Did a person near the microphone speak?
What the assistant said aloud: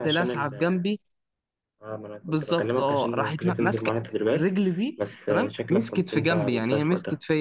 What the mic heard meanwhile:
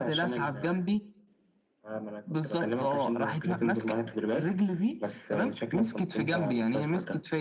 No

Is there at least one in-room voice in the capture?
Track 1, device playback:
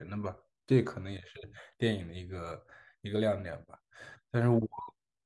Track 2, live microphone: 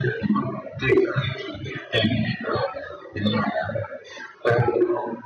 No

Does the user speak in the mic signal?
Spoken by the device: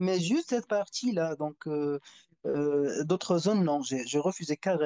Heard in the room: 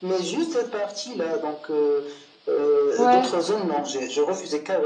Yes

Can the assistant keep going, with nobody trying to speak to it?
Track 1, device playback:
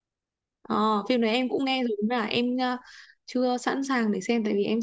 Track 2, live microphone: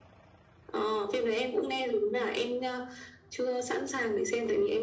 Yes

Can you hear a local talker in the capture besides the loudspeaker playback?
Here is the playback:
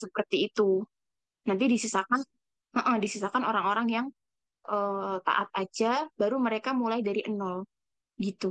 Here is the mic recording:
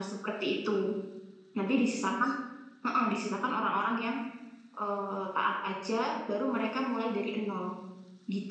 No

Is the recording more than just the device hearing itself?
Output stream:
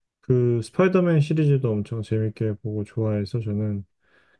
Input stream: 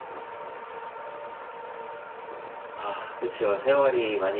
Yes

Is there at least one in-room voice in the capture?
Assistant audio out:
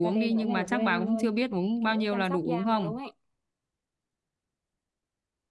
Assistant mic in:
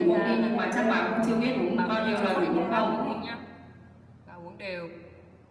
Yes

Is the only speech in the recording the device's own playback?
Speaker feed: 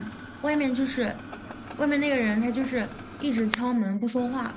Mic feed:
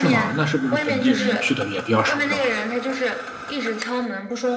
No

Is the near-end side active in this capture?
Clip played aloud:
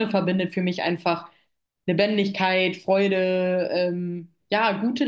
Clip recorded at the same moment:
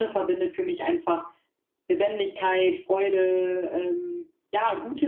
No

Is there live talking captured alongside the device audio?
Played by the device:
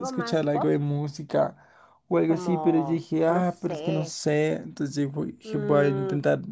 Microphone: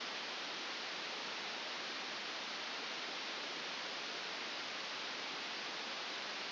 No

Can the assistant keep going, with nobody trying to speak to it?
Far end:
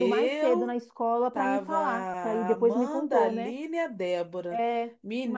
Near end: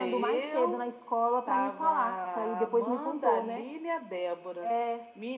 Yes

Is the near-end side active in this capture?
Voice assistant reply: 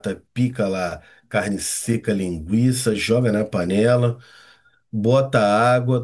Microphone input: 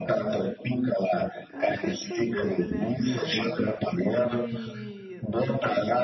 Yes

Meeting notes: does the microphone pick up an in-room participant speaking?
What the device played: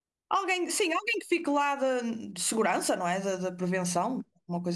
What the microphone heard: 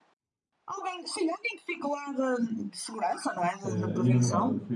Yes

